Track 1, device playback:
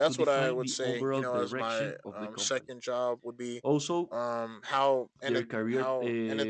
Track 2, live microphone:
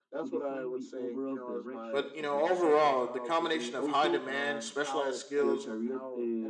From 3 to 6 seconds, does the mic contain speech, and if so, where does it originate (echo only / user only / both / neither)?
both